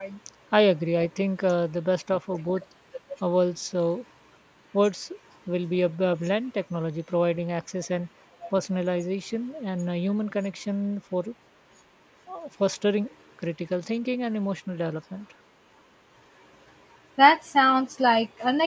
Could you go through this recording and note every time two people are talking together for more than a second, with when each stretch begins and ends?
none

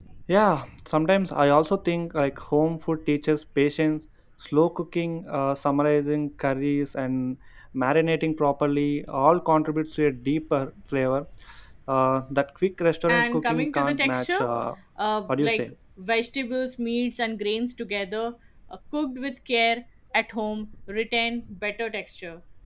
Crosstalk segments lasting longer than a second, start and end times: 13.1-14.4

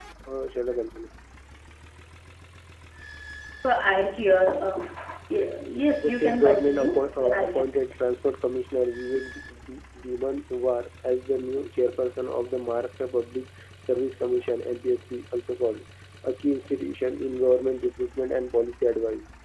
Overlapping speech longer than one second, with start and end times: 6.0-7.6

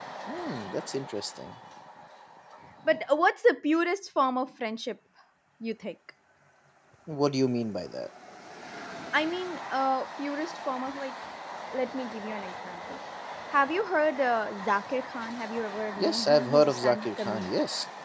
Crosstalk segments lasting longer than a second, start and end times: 16.0-17.5

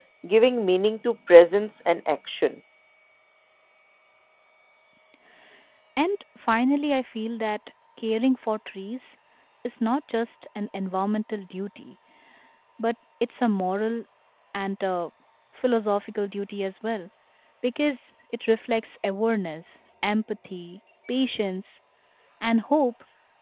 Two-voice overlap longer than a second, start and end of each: none

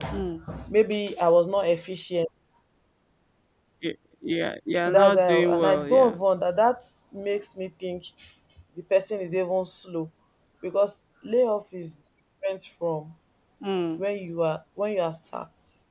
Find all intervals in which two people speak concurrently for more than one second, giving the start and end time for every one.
5.0-6.2

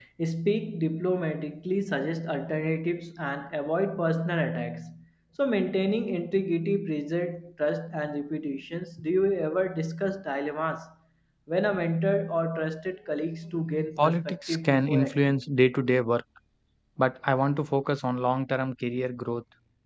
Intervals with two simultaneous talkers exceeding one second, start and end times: 14.0-15.3

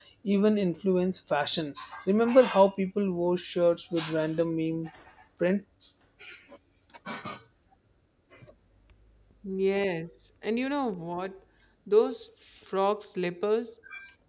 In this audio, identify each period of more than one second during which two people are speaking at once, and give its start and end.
none

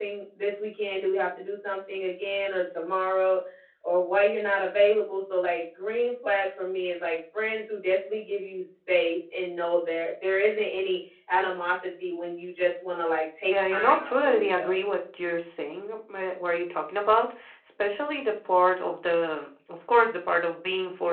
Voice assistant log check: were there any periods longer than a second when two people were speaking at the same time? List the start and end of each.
13.5-14.8

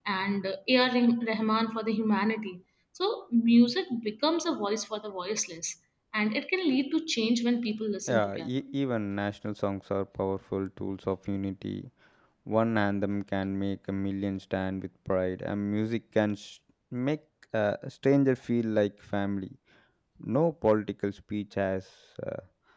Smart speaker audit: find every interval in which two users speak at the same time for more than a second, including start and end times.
none

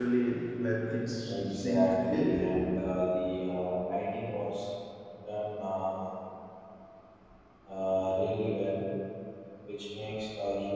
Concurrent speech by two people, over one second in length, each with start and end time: 1.3-2.6

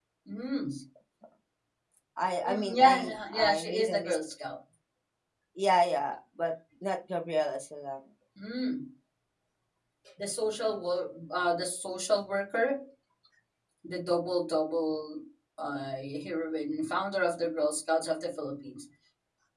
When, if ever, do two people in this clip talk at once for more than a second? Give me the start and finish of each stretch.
2.5-4.2

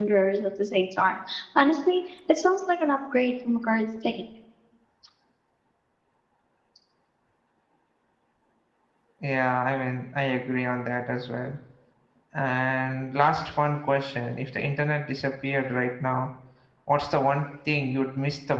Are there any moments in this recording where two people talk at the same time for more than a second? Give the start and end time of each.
none

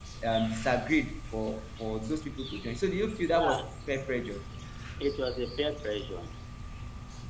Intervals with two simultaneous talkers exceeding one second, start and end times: none

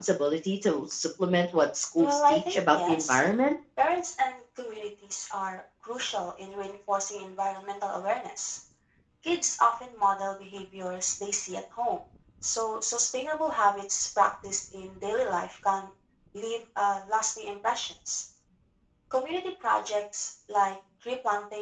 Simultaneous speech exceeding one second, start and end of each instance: 2.0-3.2

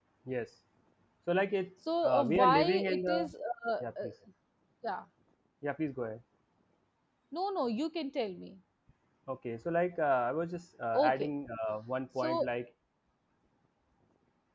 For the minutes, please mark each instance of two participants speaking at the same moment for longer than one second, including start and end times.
2.0-3.3

